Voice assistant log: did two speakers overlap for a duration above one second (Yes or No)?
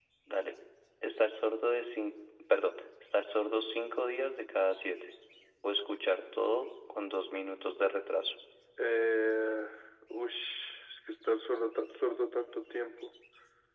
No